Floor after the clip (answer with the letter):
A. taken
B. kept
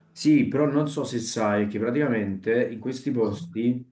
B